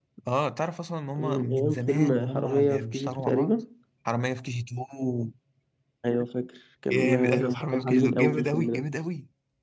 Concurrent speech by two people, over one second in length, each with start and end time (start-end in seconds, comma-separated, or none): 1.2-3.6, 6.9-8.9